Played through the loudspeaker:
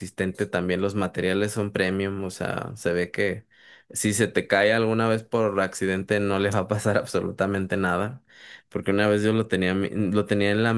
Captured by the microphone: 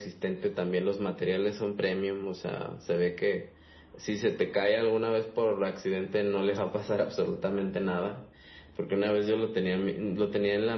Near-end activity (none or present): none